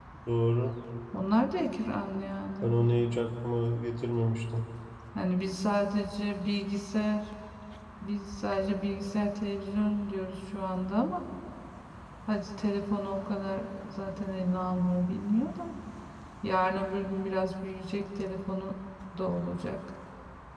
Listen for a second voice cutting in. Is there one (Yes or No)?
No